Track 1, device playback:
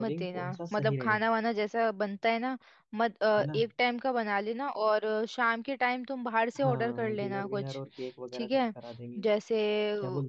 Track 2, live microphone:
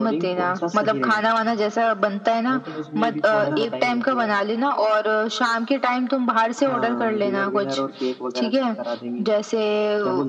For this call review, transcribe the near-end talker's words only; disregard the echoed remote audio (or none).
लेकिन उसमें भी थोड़ा तो टाइम लगेगा